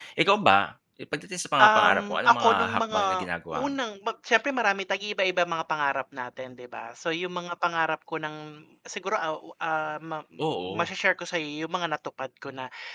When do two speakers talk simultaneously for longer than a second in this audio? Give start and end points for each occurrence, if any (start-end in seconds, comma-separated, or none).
1.6-3.7